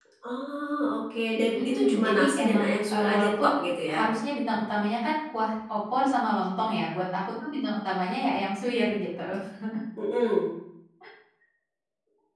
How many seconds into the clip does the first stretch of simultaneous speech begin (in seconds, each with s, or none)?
1.6 s